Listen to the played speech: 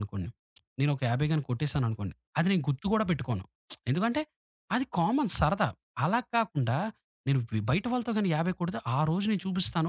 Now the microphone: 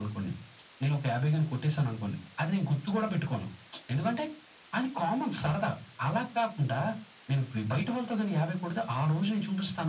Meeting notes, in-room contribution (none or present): none